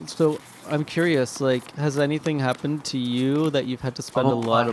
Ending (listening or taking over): taking over